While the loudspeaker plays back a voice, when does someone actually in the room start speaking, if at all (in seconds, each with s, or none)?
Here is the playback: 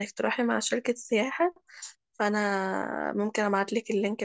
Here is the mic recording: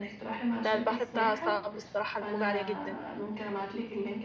0.6 s